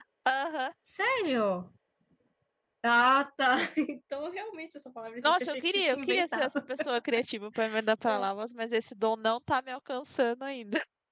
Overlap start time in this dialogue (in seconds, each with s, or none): 5.2 s